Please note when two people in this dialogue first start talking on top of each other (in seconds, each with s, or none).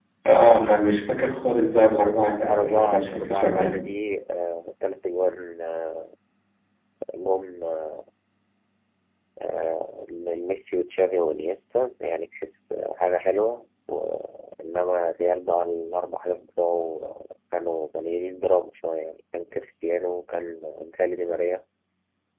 2.4 s